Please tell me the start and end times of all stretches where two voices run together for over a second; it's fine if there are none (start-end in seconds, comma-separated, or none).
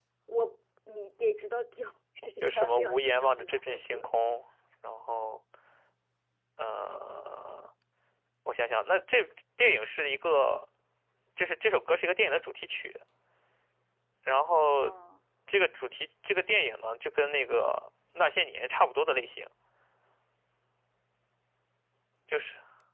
2.4-4.1